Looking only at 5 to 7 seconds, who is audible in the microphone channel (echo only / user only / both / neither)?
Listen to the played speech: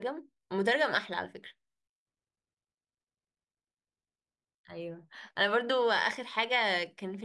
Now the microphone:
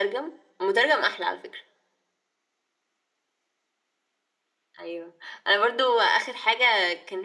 echo only